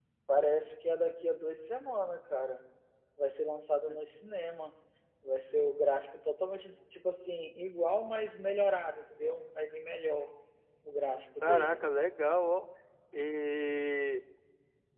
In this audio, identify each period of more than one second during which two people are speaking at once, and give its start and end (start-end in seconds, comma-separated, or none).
none